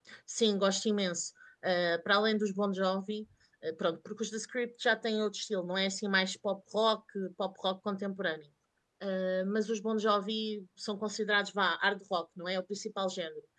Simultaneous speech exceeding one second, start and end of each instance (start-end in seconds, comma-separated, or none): none